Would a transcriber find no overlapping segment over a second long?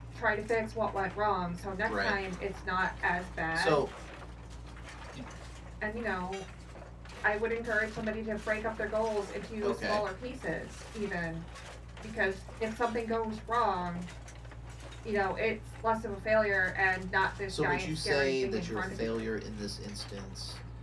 No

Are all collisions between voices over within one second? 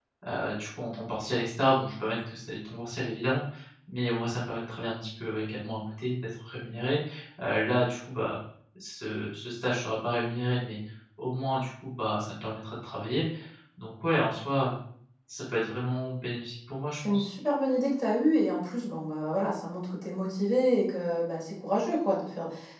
Yes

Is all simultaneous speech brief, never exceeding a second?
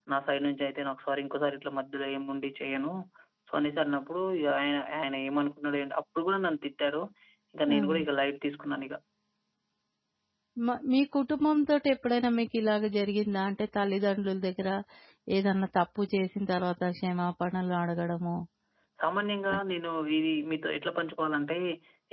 Yes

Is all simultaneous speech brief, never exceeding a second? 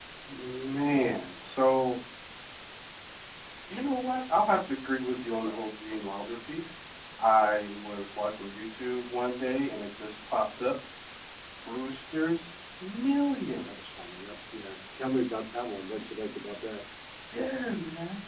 Yes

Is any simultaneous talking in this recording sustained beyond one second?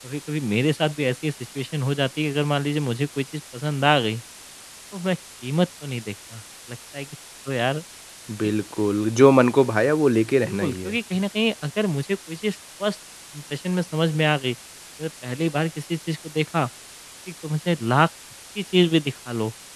No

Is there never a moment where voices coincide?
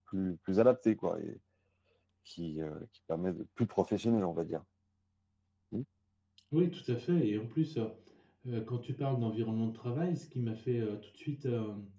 Yes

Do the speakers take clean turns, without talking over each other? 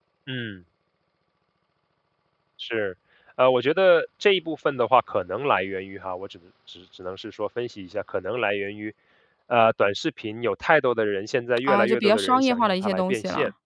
No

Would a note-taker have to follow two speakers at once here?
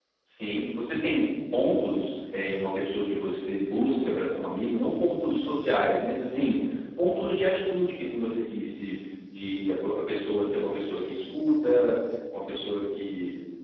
No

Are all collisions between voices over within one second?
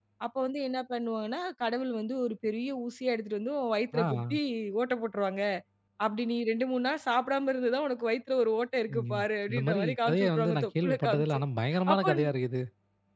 No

